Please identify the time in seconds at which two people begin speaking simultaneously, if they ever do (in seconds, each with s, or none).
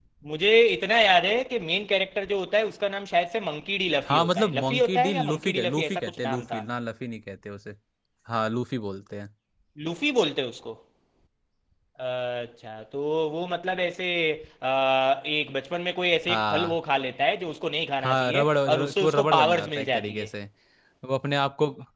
4.1 s